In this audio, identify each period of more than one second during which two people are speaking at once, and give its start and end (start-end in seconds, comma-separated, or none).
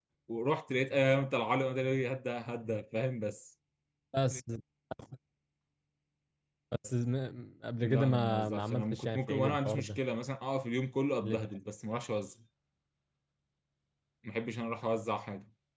7.8-10.0